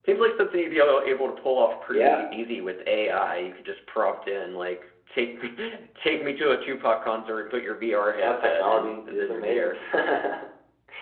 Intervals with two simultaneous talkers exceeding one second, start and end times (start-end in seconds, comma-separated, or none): 8.2-9.7